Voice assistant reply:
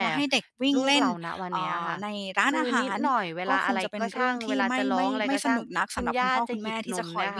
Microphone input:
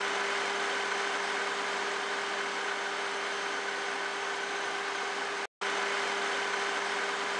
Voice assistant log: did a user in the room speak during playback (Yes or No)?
No